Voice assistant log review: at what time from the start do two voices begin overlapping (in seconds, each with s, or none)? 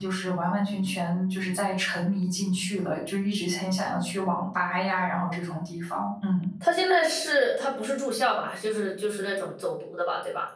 none